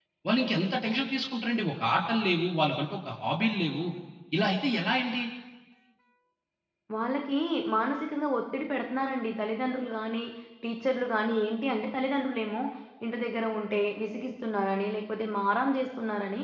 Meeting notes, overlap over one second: none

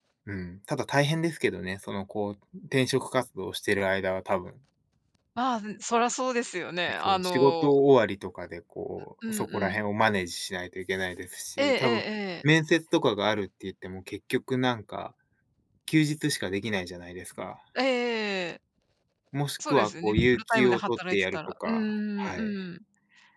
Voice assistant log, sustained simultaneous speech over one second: present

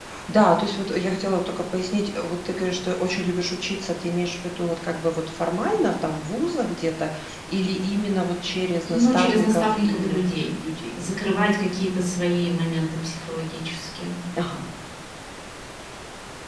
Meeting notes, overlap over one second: present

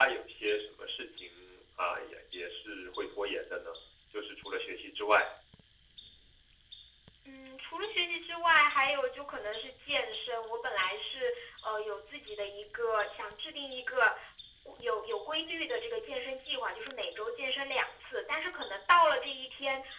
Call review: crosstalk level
none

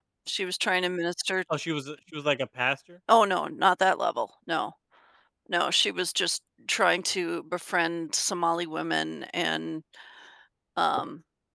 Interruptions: none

